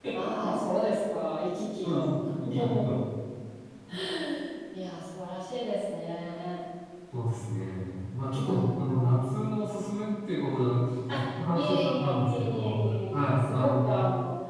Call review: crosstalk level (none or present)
present